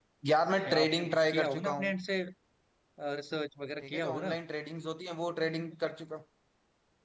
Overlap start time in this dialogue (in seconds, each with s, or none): 0.7 s